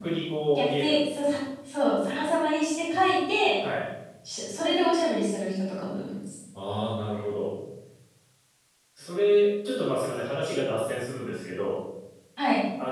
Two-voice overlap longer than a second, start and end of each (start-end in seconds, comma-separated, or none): none